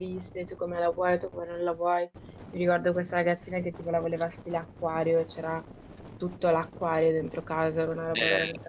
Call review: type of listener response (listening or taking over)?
taking over